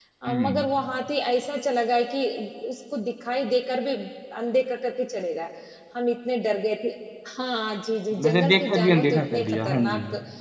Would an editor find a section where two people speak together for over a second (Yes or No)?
Yes